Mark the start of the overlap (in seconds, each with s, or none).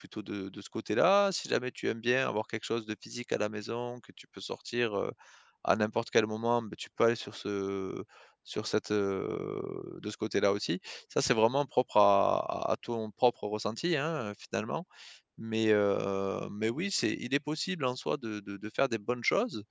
none